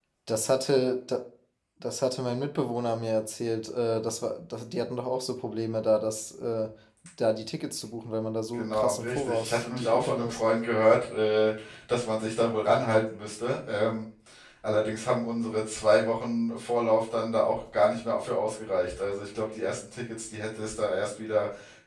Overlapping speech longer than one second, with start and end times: 8.5-10.4

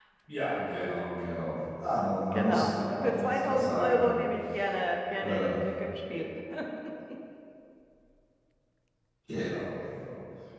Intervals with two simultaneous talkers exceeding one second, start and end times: 2.3-4.2

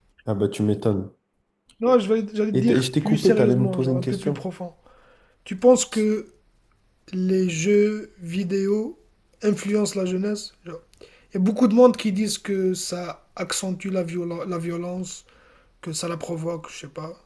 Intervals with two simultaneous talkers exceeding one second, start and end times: 2.5-4.5

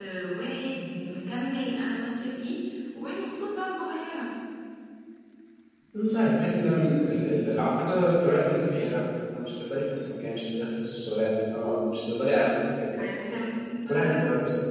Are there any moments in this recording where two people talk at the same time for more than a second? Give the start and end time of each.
none

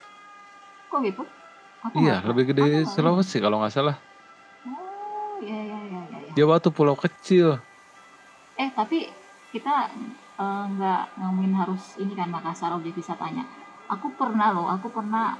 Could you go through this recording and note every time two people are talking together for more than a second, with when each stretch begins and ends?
1.9-3.2

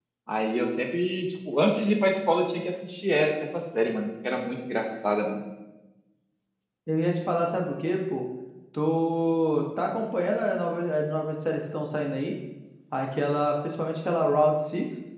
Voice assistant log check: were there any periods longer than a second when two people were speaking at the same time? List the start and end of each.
none

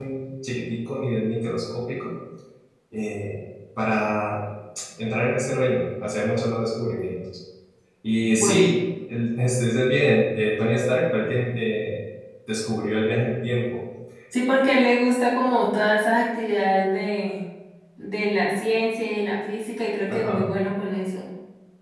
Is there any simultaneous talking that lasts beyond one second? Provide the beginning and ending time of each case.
none

